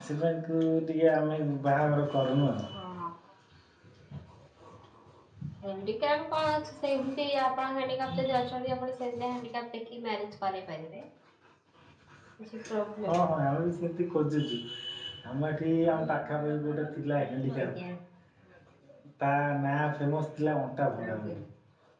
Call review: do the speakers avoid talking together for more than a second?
Yes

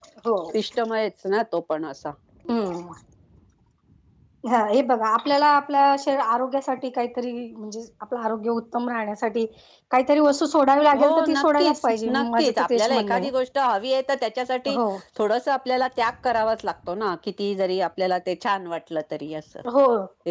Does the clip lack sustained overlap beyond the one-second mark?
No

